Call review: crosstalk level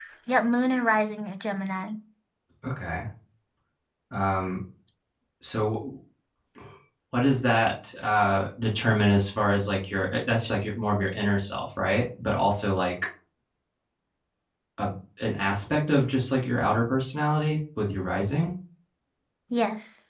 none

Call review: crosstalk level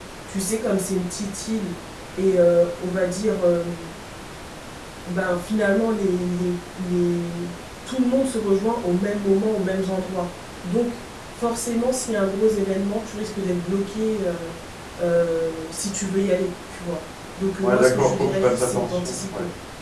present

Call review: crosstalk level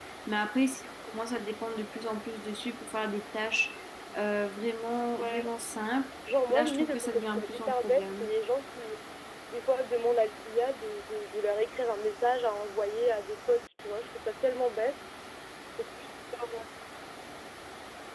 present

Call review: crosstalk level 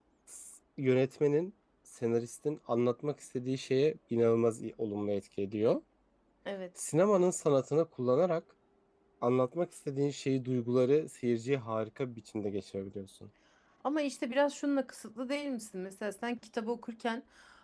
none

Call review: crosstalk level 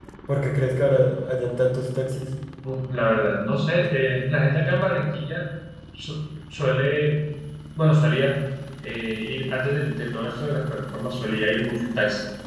none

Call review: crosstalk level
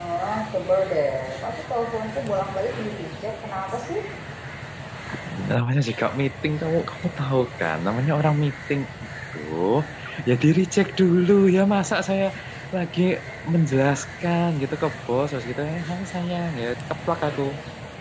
none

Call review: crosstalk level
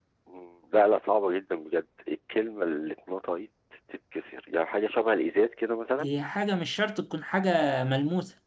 none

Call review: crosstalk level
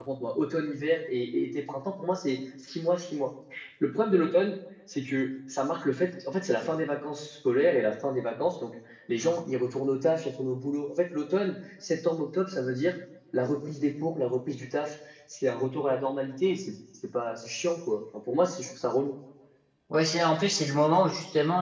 none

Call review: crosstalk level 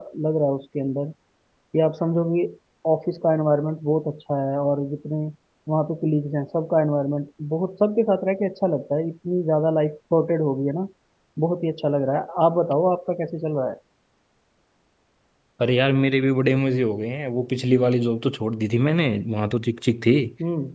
none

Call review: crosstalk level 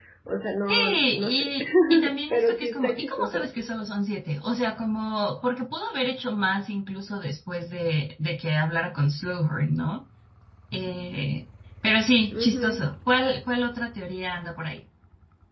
present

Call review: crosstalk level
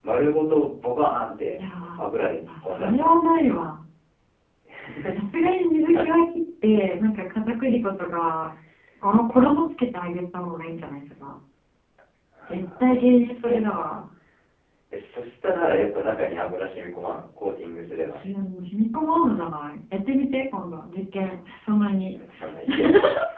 present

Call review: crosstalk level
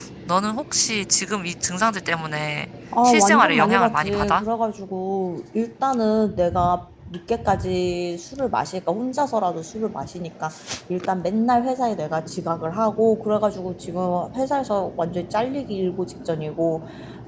present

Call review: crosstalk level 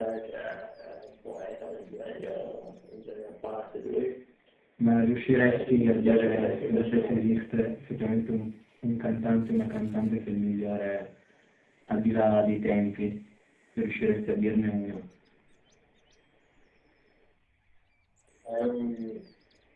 present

